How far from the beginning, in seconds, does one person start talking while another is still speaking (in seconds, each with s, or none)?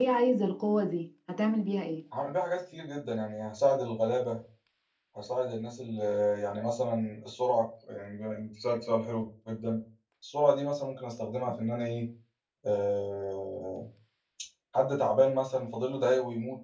none